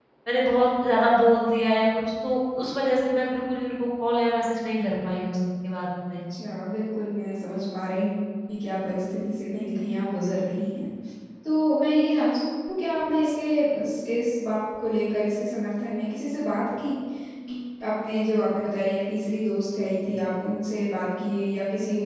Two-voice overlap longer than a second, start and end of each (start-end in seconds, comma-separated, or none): none